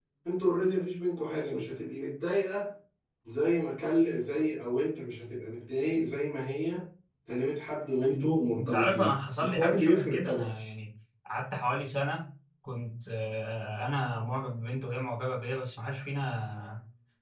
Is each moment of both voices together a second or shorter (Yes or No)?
No